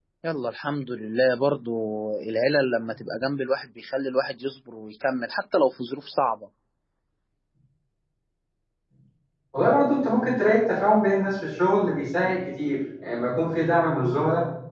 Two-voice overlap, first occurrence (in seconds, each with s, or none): none